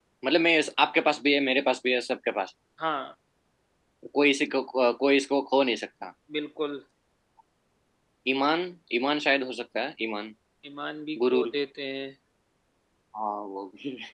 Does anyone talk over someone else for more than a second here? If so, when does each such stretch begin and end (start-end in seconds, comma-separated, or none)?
none